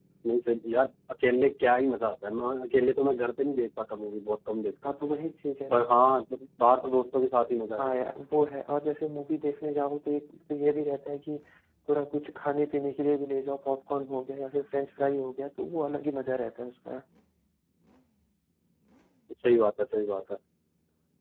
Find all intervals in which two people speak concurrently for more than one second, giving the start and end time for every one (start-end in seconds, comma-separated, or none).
none